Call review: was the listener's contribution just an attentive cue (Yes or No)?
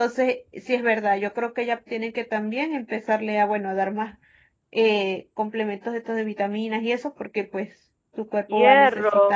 No